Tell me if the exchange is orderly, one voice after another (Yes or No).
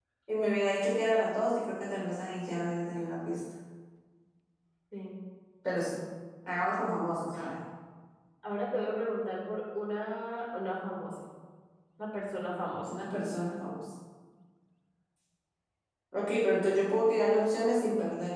Yes